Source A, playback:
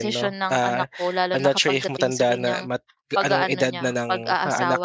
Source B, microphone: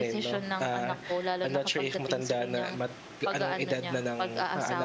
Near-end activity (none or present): none